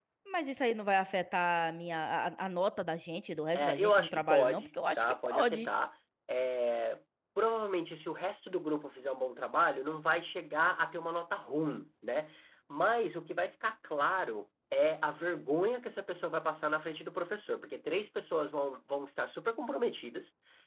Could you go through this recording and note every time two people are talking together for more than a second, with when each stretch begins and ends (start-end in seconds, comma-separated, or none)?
3.5-5.7